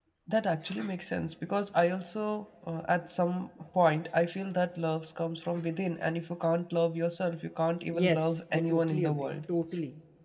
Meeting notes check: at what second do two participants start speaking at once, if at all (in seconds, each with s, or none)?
7.9 s